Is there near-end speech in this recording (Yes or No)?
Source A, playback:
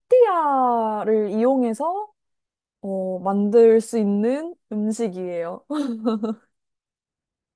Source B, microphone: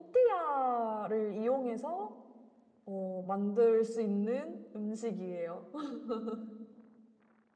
No